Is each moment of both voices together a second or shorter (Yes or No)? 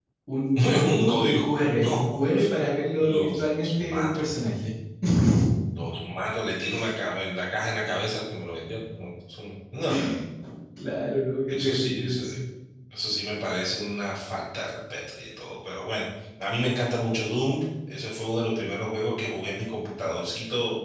No